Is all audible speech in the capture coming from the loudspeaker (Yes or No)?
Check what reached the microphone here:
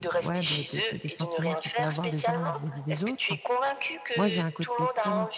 No